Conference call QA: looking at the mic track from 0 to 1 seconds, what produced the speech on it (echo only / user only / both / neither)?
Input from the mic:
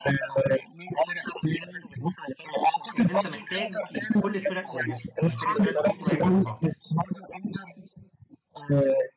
echo only